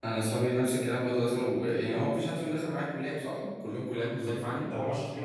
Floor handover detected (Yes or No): Yes